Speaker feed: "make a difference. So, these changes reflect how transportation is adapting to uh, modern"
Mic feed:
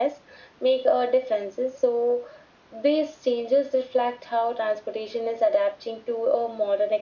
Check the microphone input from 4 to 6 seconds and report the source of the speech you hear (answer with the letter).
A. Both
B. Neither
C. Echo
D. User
C